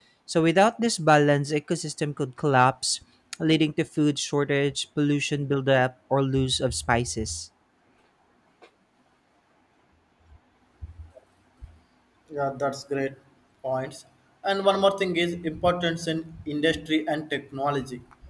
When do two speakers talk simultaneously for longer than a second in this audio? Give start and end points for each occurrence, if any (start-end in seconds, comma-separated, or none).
none